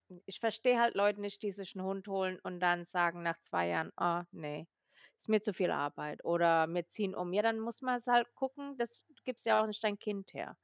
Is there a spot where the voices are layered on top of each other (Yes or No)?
No